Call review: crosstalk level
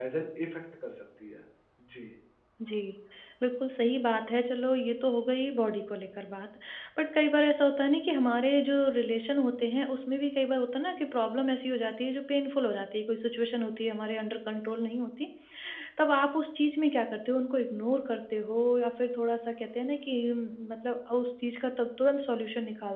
none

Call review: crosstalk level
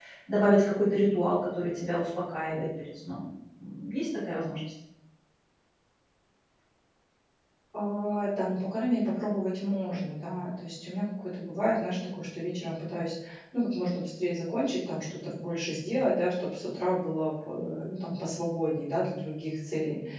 none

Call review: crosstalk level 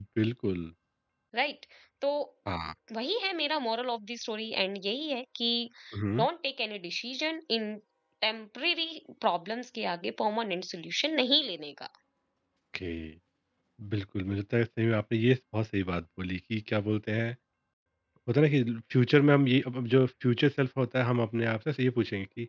none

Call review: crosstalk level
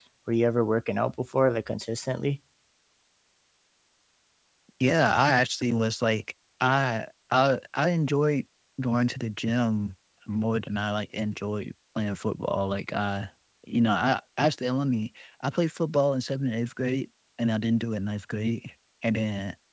none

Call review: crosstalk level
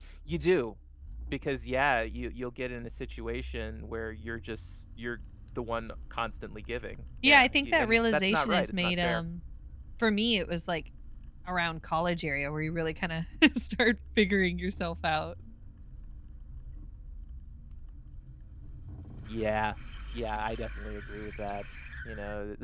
present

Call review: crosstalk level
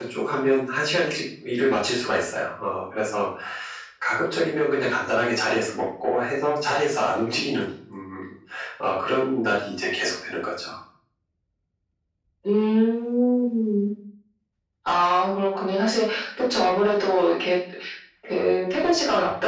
none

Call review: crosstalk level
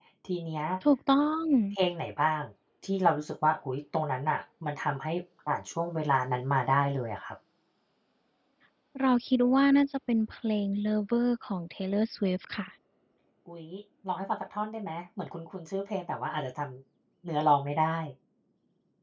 none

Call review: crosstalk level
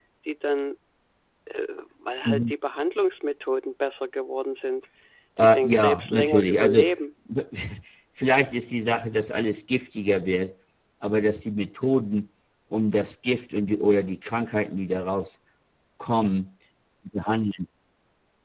present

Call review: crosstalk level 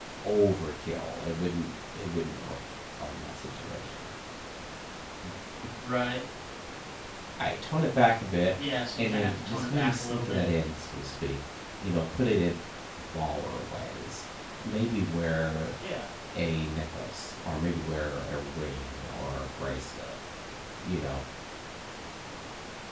present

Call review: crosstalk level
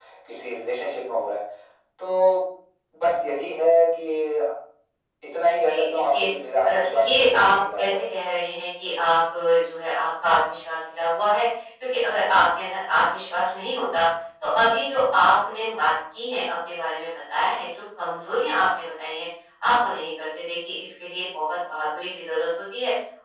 present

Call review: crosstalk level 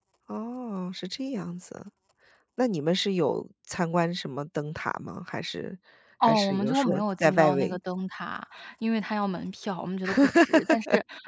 present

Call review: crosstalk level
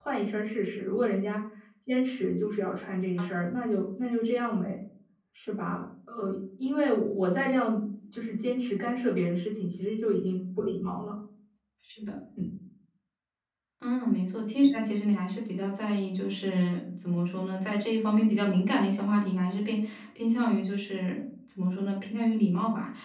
none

